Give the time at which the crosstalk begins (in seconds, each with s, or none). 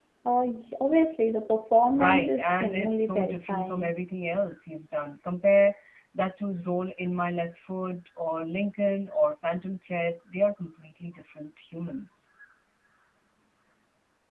1.9 s